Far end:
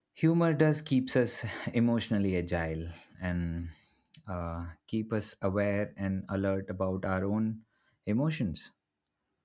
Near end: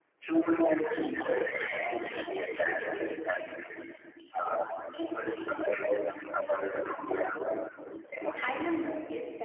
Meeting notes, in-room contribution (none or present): present